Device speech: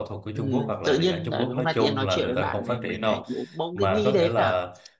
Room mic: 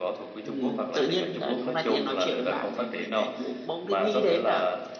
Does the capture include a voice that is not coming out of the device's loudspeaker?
No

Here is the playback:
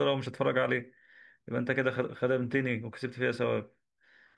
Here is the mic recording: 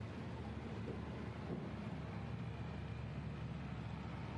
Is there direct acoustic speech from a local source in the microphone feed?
No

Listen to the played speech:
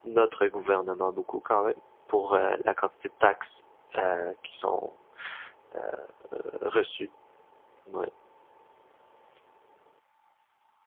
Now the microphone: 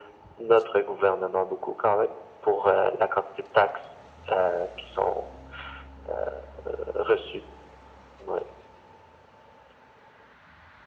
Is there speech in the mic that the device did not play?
No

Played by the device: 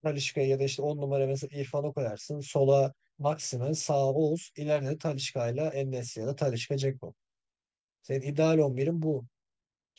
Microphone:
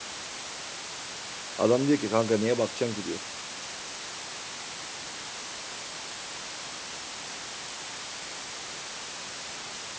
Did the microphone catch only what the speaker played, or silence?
No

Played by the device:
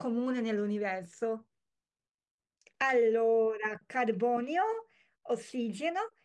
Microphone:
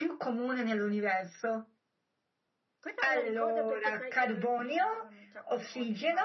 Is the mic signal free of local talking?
No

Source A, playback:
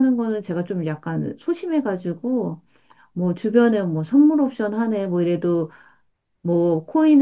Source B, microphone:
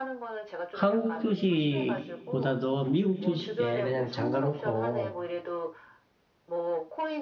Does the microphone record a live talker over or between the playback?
Yes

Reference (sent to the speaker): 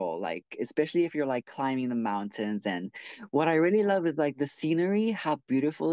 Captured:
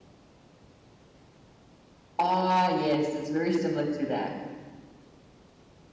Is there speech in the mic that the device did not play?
Yes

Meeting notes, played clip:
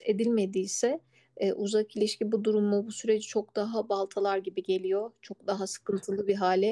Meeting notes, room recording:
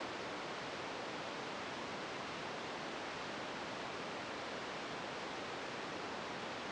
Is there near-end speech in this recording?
No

